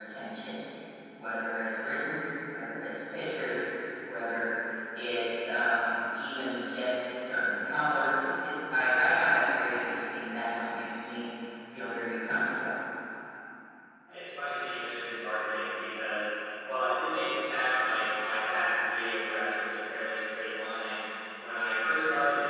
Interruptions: none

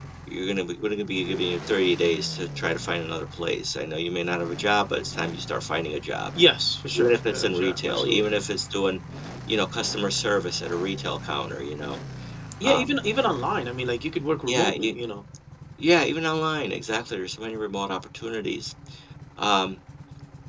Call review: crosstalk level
present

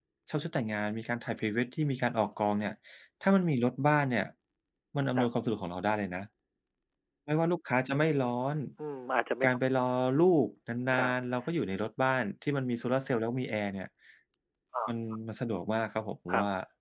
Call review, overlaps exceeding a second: none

